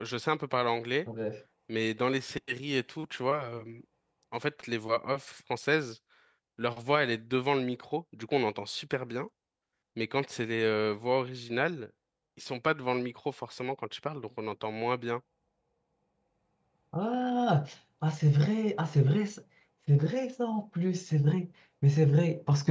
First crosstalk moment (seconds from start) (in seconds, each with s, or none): none